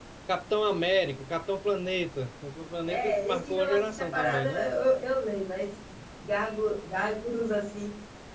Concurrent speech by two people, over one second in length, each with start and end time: 2.9-4.7

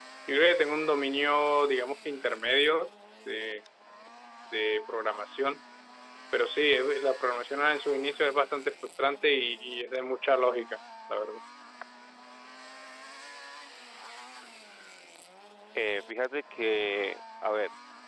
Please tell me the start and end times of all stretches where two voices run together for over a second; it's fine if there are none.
none

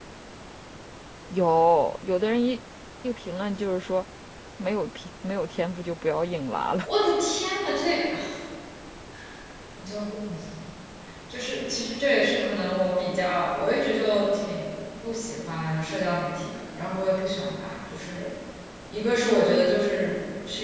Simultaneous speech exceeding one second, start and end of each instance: none

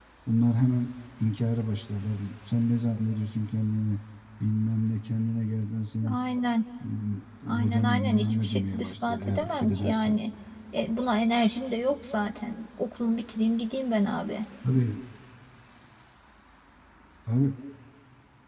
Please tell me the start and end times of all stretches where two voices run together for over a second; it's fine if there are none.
7.5-10.2

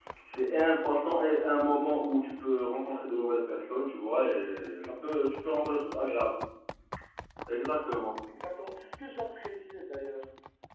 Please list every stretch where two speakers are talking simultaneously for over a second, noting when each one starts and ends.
none

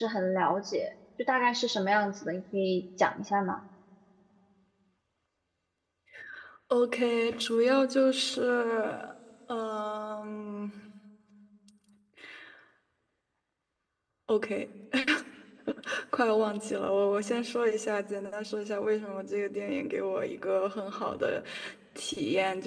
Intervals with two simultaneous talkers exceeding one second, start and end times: none

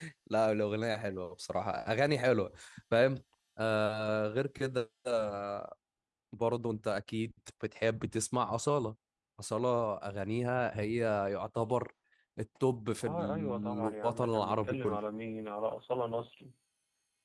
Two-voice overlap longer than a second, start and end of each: 13.0-15.0

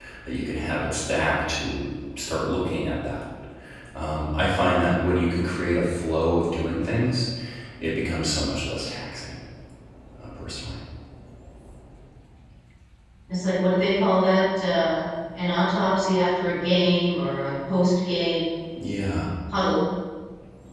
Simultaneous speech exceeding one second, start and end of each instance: none

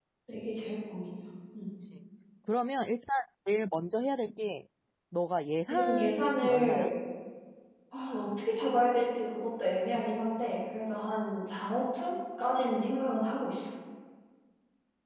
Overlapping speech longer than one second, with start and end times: 5.7-6.9

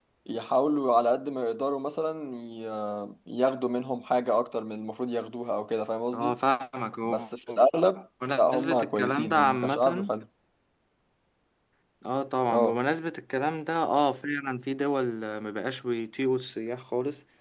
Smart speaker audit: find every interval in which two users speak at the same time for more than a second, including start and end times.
8.4-10.1

